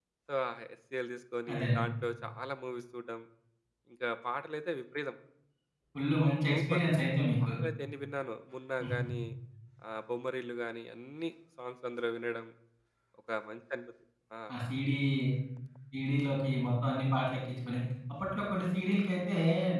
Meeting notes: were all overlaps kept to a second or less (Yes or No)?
Yes